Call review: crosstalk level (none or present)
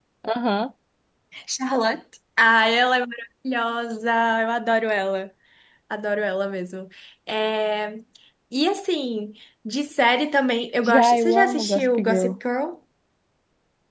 present